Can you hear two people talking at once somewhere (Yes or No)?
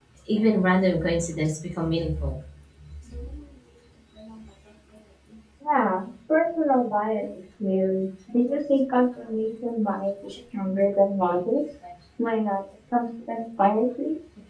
No